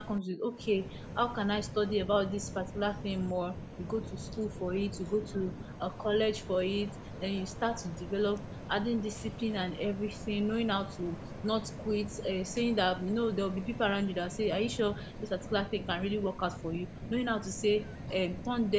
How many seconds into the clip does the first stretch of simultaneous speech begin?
none

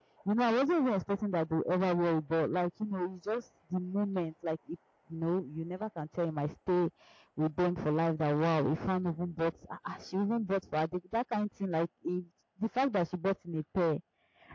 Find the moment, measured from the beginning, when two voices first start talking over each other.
none

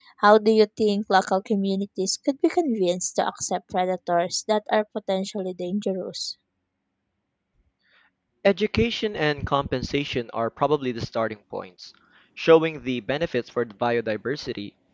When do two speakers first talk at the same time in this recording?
none

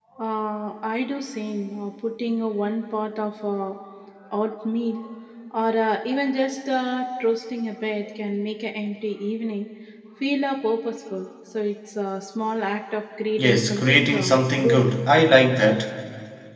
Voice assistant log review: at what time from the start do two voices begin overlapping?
13.4 s

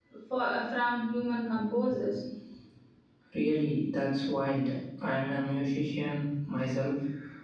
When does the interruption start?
none

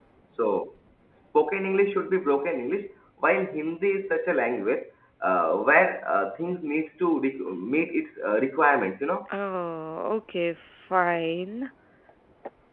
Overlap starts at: none

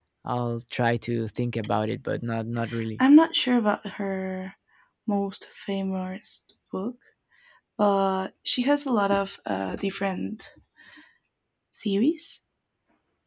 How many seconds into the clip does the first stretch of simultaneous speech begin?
none

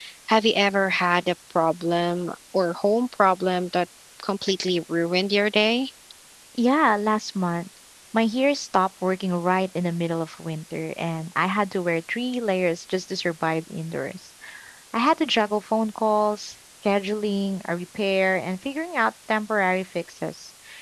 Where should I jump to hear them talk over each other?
none

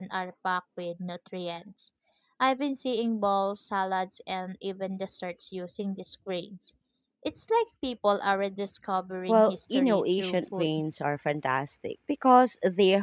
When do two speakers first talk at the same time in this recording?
9.3 s

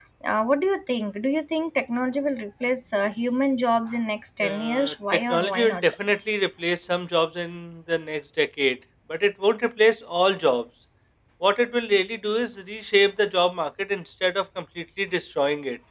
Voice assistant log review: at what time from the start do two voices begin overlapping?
4.4 s

